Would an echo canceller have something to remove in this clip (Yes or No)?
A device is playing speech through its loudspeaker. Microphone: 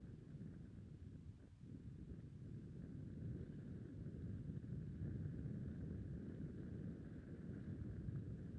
No